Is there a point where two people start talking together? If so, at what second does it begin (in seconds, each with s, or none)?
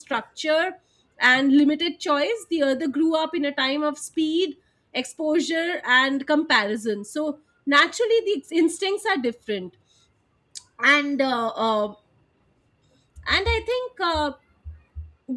none